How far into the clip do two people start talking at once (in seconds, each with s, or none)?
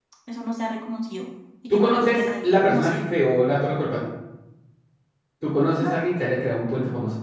1.7 s